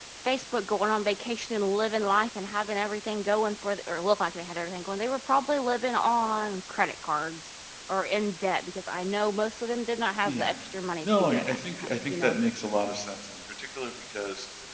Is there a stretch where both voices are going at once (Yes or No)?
Yes